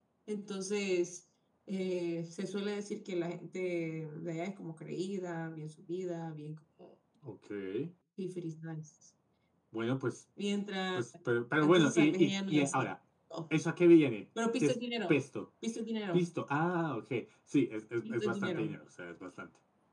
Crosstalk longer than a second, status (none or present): present